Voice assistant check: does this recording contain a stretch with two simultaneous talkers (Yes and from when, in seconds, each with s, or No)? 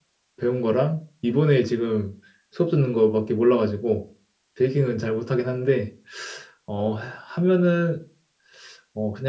No